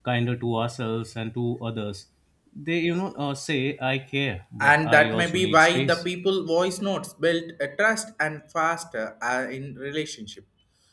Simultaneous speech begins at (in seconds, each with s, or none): 4.6 s